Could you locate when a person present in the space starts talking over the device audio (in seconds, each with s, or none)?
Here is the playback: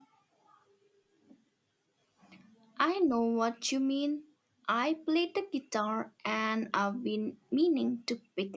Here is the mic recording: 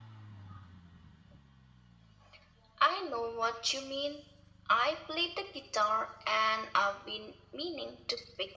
none